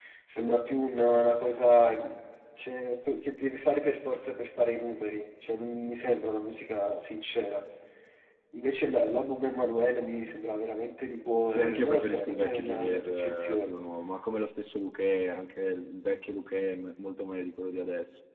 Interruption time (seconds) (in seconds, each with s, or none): 11.6 s